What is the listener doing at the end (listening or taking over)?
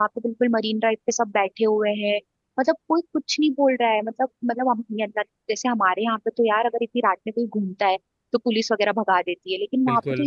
listening